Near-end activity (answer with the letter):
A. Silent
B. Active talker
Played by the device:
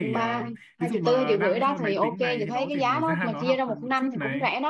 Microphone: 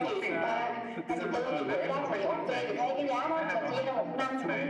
B